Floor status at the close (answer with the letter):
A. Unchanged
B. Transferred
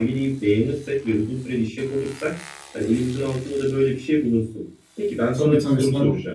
B